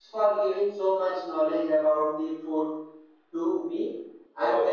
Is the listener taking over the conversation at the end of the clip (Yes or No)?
No